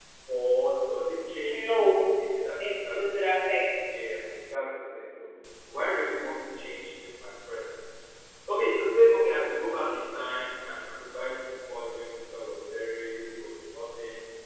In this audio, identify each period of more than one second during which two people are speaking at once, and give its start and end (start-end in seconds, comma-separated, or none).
none